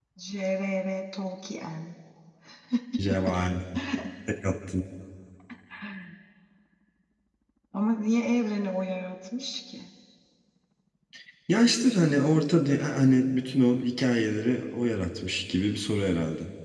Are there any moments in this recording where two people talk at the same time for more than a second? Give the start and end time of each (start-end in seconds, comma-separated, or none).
none